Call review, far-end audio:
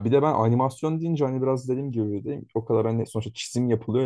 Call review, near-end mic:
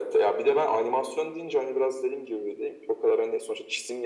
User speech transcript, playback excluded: none

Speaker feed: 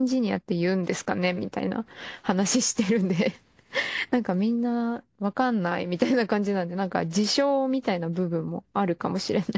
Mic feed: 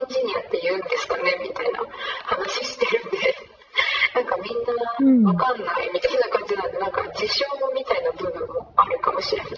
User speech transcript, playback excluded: うん、

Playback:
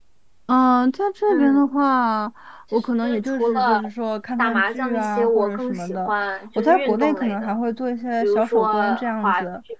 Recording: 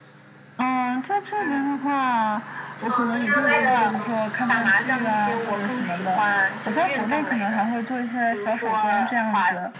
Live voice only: 哦，DIY 的那种东西吗？

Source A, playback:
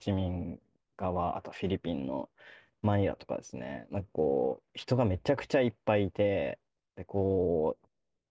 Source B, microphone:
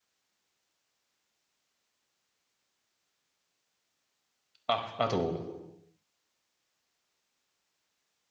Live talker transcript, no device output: あ、あと、

